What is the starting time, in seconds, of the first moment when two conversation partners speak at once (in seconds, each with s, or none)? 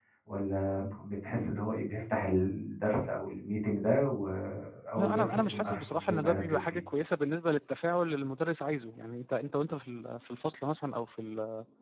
5.0 s